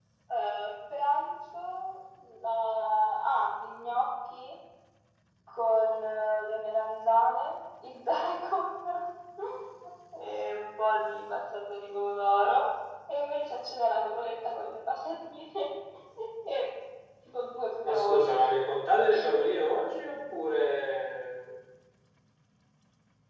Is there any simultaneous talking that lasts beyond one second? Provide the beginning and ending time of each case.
none

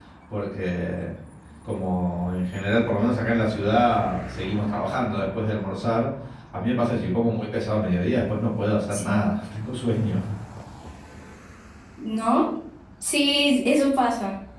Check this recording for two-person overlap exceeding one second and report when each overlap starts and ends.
none

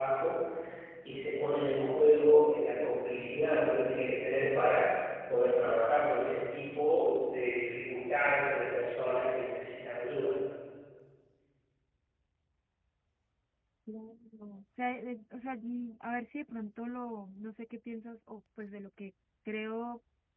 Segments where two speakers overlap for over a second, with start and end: none

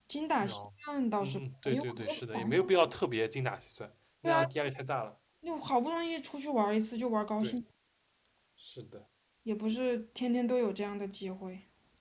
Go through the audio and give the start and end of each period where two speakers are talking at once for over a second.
1.2-2.7

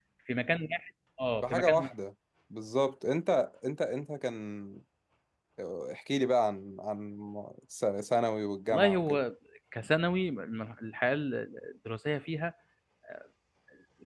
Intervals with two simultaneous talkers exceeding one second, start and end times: none

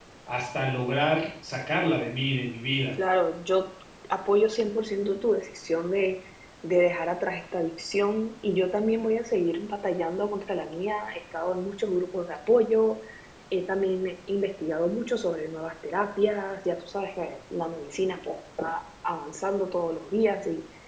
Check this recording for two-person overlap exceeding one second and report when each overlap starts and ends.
none

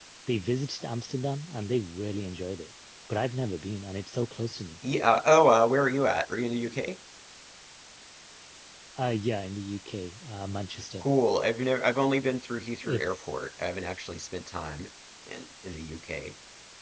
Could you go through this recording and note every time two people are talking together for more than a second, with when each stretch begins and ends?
none

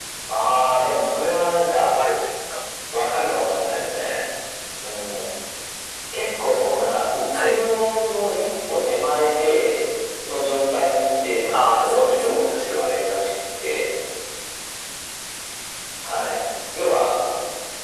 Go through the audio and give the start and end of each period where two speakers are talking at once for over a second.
11.5-12.8

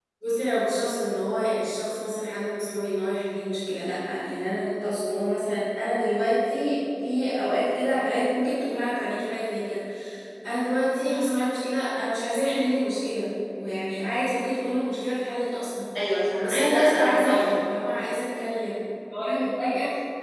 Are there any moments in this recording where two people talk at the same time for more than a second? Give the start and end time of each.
16.4-17.6

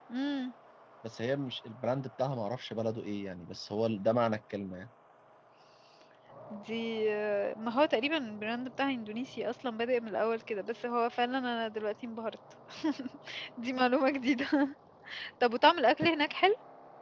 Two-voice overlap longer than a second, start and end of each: none

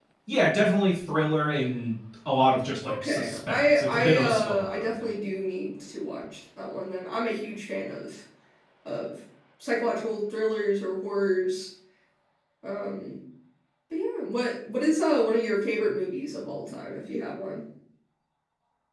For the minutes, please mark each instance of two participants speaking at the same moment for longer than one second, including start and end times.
3.0-5.0

